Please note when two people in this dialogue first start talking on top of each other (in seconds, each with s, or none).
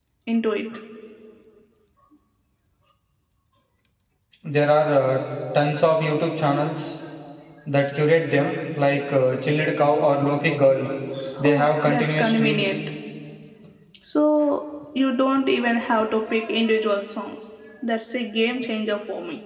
11.4 s